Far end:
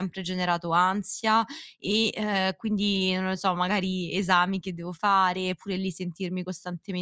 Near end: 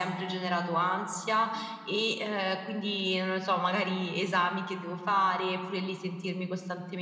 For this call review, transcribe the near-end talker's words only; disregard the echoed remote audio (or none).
none